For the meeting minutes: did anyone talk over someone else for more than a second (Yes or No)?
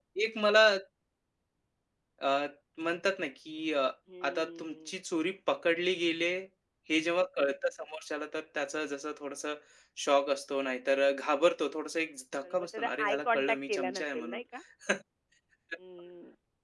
Yes